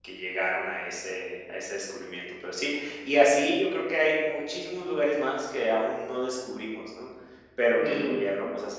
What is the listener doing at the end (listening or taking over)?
listening